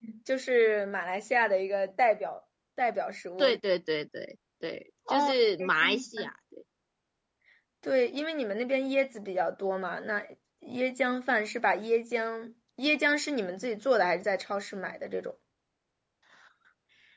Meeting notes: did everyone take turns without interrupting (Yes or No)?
No